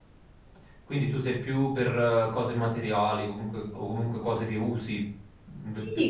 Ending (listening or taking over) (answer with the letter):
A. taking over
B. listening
A